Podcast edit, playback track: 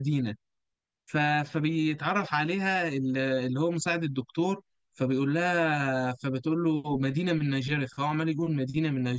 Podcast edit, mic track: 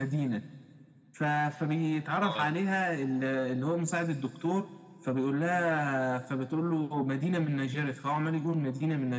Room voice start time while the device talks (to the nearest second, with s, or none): 2 s